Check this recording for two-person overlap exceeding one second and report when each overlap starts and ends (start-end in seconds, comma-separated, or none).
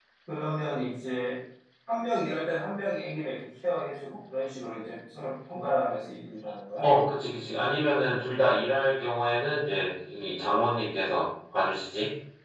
none